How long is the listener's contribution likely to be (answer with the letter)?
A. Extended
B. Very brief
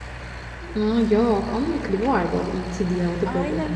A